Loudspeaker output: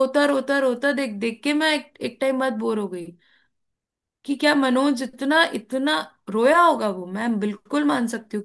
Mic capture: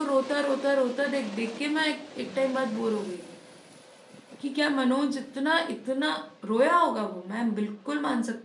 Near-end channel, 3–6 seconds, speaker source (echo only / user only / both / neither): echo only